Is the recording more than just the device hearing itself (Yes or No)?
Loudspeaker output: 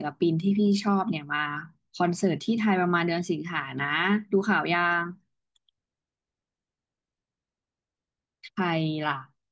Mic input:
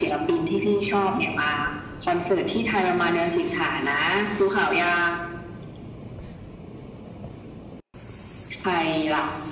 No